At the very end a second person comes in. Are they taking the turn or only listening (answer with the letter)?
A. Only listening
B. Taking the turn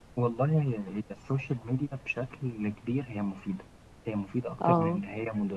A